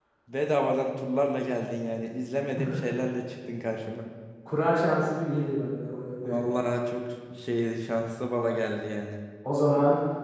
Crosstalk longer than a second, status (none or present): none